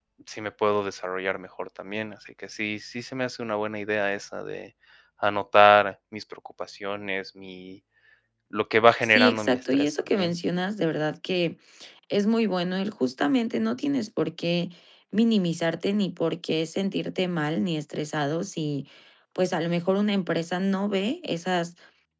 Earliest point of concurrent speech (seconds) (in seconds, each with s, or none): 9.0 s